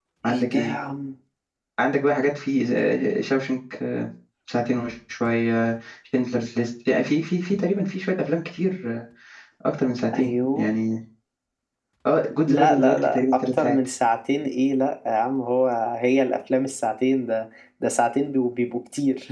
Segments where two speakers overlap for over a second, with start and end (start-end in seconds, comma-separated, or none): 12.4-13.8